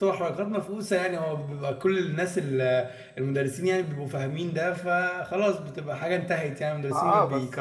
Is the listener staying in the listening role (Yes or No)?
No